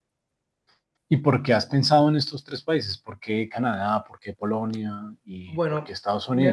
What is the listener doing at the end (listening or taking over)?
taking over